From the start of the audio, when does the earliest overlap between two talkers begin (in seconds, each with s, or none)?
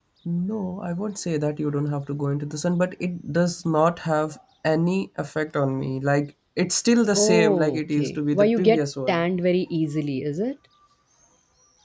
7.2 s